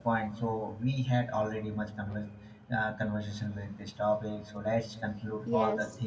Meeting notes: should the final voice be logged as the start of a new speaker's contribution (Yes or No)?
No